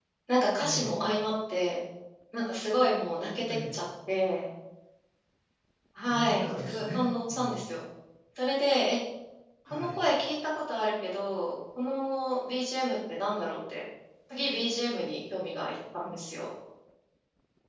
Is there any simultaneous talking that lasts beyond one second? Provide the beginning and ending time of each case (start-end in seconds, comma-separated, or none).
6.1-7.7